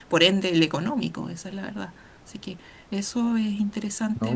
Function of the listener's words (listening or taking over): taking over